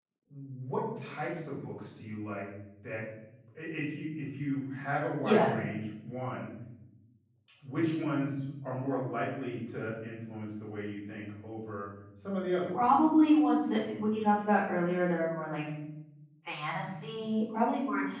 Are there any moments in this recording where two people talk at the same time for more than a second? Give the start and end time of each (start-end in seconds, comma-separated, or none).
none